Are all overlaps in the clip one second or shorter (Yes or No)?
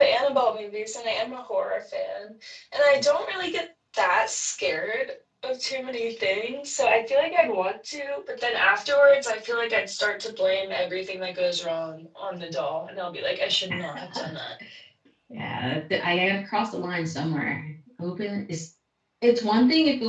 Yes